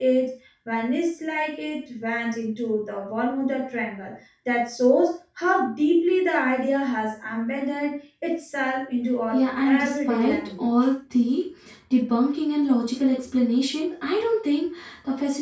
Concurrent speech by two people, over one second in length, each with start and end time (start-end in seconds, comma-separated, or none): 9.3-10.7